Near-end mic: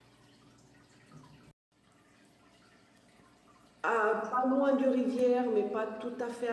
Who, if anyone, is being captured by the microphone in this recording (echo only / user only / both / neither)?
user only